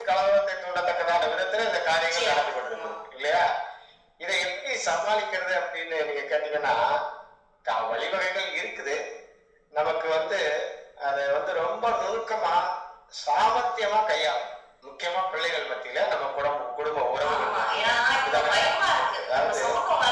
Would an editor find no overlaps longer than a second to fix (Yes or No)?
No